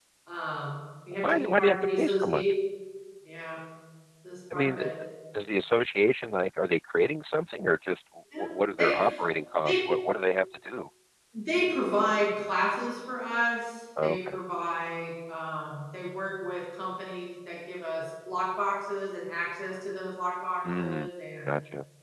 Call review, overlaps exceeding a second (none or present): present